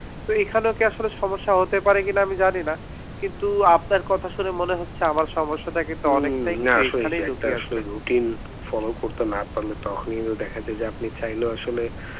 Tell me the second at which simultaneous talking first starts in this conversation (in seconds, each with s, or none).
6.0 s